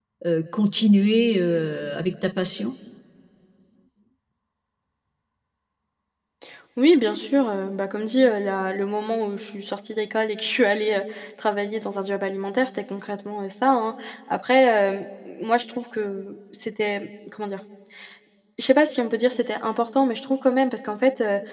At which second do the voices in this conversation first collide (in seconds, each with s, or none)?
none